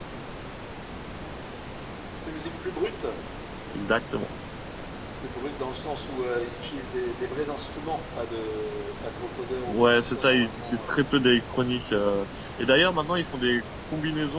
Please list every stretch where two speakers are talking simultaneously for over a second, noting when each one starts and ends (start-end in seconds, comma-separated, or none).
9.7-11.0